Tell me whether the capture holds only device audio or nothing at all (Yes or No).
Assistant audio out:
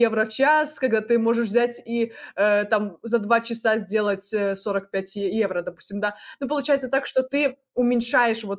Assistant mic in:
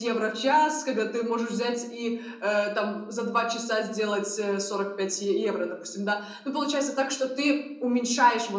Yes